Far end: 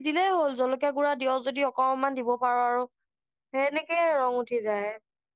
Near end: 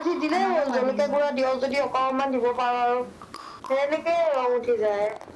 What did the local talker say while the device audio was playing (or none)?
আমাহে খোৱা দেৰি হয়।